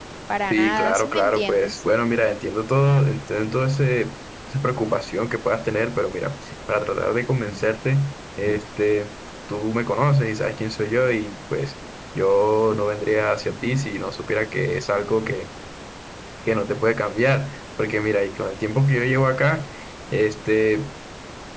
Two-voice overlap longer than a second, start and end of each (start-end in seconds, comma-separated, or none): 0.5-1.8